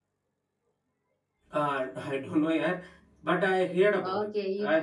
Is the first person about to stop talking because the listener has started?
Yes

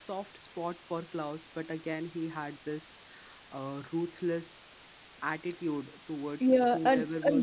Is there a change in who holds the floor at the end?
Yes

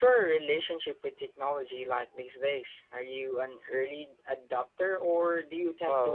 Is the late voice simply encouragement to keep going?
No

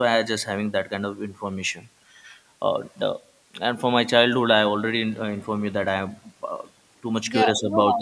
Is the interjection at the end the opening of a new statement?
Yes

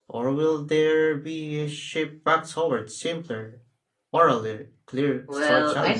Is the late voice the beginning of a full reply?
Yes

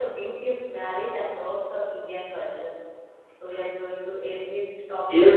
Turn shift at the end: Yes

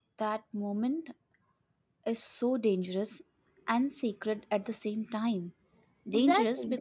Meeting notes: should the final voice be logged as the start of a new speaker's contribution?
No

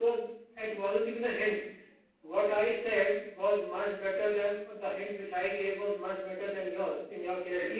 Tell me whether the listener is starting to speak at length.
No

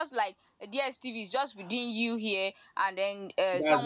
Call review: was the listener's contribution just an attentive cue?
No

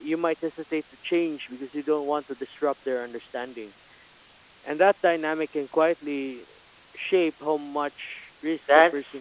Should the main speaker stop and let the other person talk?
Yes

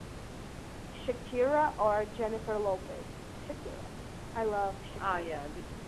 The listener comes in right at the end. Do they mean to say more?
Yes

